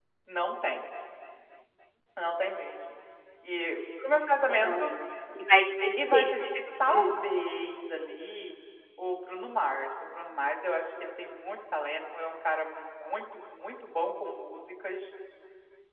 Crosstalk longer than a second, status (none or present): none